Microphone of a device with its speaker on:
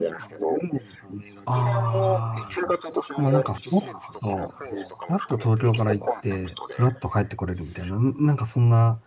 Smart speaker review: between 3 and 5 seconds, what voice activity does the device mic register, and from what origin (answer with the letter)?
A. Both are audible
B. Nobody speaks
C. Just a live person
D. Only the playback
A